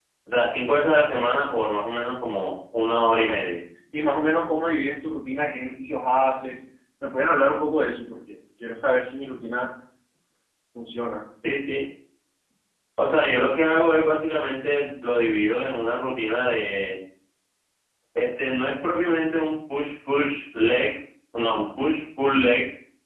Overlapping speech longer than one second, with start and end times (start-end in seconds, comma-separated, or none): none